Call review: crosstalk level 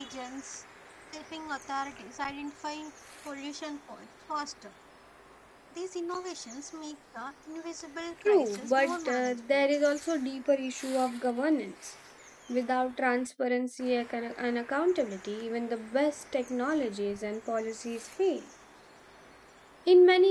present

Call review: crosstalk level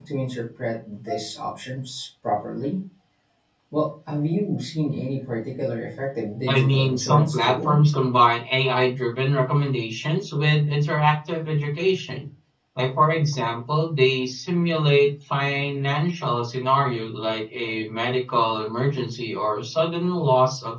present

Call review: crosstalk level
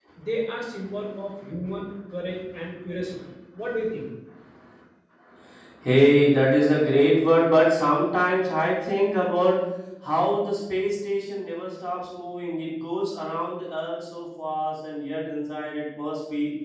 none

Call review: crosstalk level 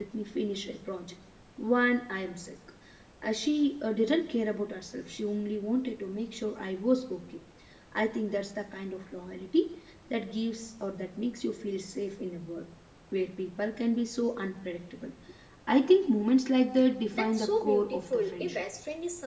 present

